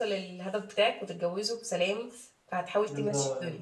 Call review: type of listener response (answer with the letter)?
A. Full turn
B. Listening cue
A